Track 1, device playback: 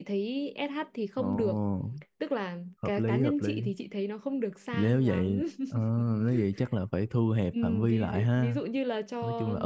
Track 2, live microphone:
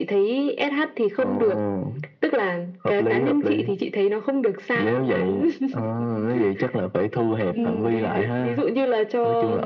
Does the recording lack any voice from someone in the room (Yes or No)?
No